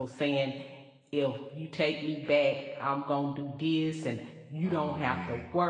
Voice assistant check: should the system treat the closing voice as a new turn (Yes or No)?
No